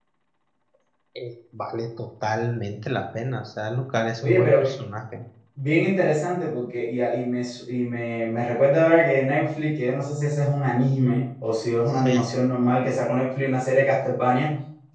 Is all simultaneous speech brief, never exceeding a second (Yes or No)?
Yes